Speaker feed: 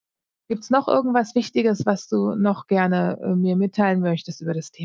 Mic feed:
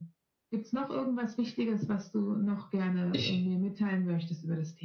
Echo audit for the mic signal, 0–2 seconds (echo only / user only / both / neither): echo only